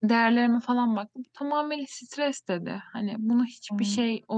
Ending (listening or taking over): listening